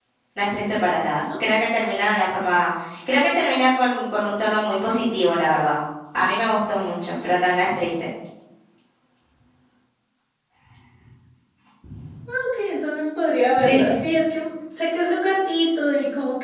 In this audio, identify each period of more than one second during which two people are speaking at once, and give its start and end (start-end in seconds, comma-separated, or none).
none